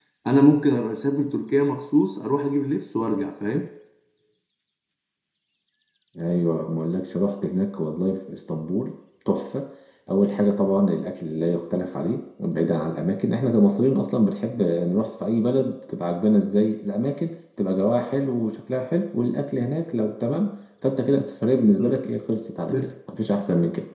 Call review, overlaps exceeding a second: none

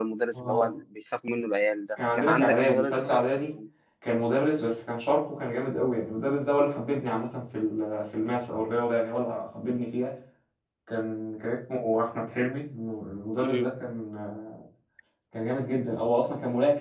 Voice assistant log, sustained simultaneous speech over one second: present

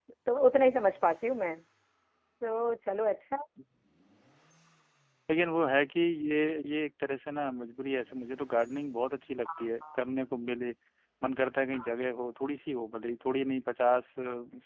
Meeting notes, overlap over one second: none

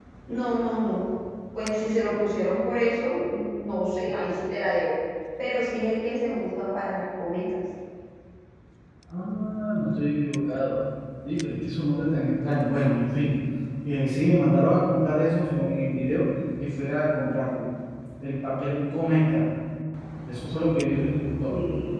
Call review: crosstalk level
none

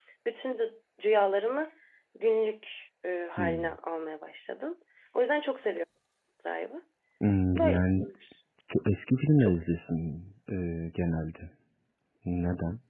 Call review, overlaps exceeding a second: none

